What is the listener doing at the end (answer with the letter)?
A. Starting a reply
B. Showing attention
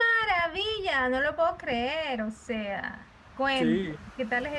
B